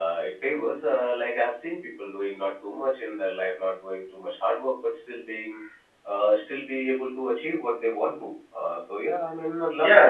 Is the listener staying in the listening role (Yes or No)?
No